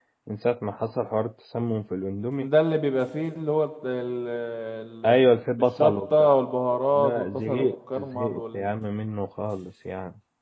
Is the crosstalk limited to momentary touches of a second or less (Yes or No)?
No